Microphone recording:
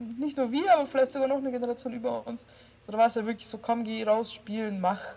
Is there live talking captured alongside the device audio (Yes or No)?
No